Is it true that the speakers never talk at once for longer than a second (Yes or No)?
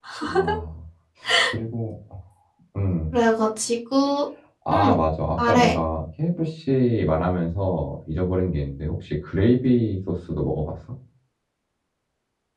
Yes